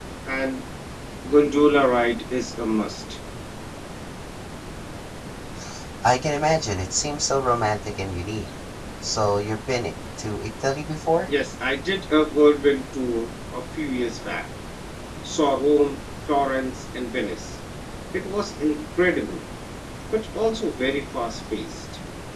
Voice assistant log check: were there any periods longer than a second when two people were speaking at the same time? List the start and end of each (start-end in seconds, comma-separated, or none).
none